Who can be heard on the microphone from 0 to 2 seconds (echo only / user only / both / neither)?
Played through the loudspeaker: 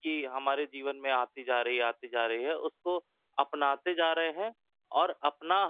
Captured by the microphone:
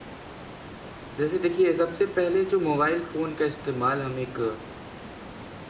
user only